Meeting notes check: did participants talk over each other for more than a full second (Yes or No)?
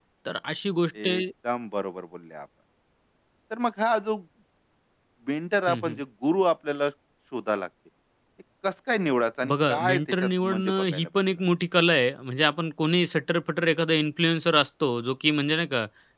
Yes